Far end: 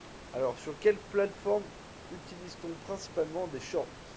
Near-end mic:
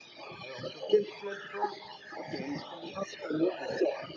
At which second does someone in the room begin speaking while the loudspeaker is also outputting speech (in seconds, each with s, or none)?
2.3 s